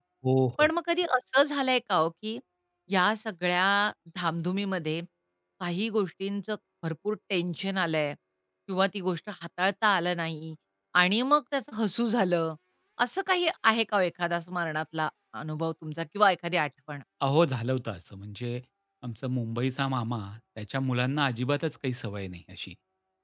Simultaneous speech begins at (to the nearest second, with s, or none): none